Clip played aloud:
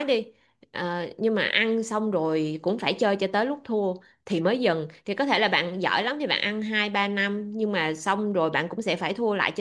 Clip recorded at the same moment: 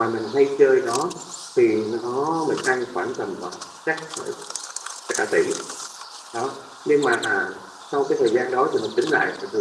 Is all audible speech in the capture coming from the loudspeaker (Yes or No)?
No